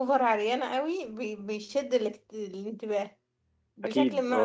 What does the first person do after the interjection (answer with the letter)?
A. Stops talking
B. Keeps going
B